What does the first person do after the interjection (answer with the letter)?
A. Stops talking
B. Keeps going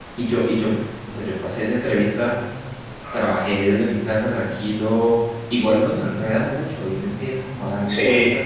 B